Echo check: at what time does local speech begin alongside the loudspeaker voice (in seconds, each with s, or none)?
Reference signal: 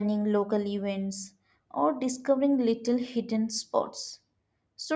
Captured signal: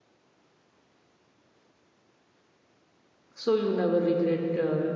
3.4 s